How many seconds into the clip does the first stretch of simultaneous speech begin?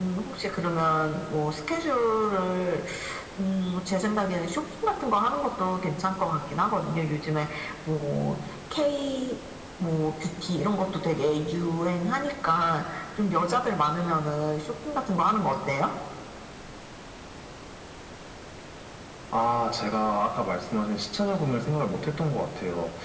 none

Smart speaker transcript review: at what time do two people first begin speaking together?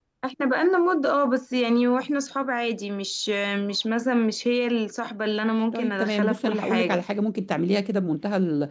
6 s

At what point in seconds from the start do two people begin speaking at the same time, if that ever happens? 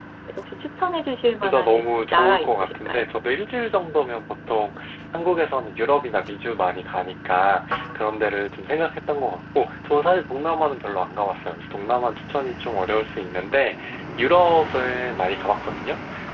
1 s

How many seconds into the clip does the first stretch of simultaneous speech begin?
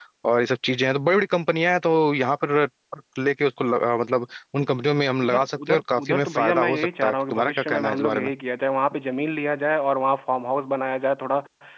5 s

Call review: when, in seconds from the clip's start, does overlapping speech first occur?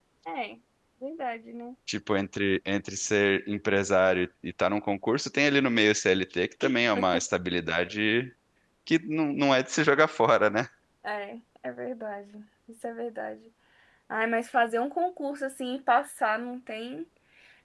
none

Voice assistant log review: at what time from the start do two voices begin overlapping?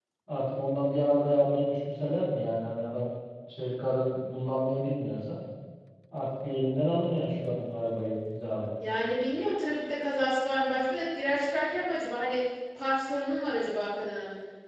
none

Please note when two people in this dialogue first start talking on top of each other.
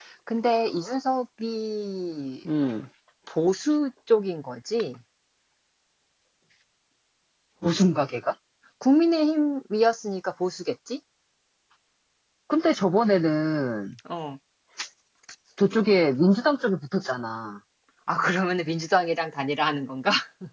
none

